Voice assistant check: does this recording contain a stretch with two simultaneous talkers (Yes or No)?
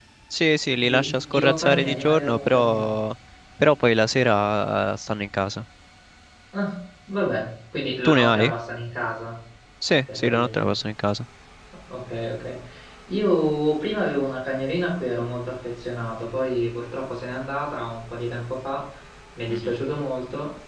Yes